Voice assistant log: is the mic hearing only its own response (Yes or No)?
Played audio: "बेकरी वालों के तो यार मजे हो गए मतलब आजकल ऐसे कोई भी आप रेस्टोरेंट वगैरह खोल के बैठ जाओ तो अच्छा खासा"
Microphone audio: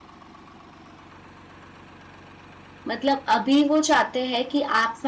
No